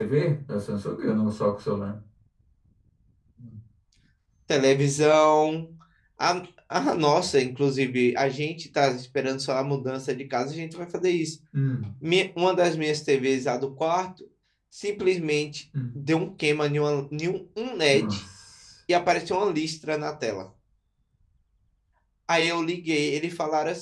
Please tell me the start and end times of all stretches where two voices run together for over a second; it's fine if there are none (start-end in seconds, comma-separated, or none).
none